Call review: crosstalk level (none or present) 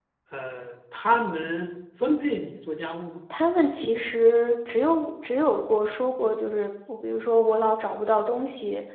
none